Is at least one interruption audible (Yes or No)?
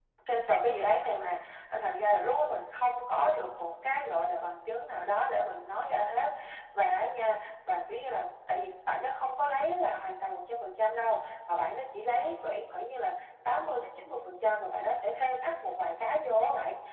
No